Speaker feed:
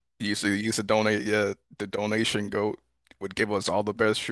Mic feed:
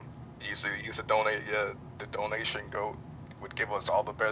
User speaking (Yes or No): No